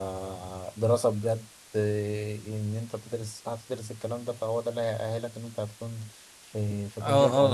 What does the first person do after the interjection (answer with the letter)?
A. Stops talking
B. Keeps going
A